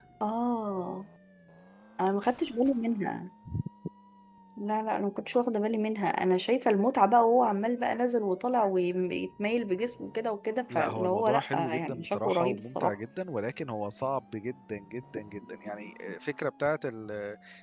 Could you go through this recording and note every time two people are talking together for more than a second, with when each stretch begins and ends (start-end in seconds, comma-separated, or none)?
10.7-12.9